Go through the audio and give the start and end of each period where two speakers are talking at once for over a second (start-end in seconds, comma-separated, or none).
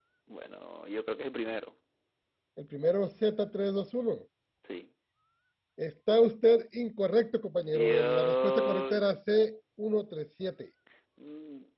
7.6-9.1